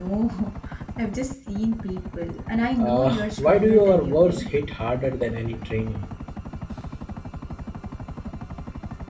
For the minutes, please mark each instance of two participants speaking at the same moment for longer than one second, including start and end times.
2.8-4.5

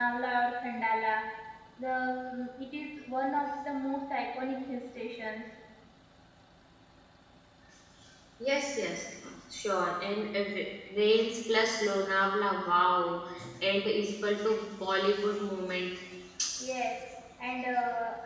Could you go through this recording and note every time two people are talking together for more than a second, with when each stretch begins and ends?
none

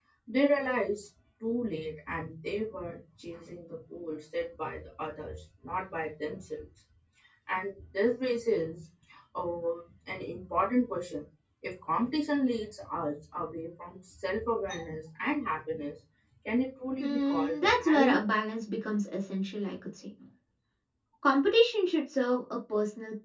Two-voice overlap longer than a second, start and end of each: 17.0-18.2

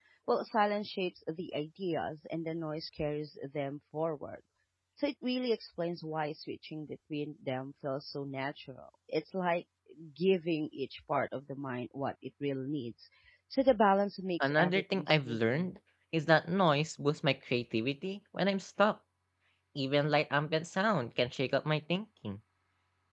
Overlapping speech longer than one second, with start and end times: 14.4-15.7

